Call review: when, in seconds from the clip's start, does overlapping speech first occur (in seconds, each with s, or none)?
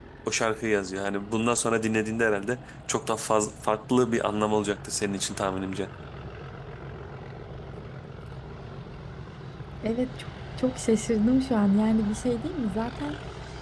none